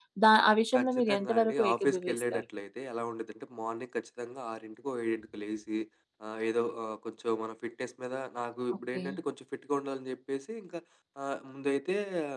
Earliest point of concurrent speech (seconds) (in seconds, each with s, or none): 0.8 s